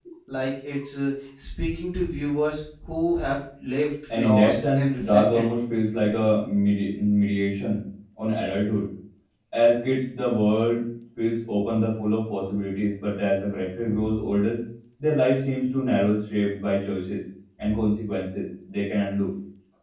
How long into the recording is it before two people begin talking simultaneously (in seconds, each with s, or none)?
4.1 s